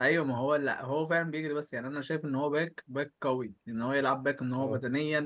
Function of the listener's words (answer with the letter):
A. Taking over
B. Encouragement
B